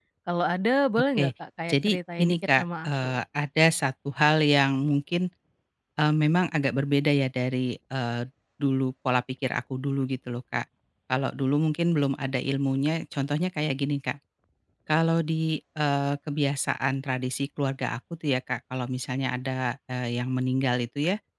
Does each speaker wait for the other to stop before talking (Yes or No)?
No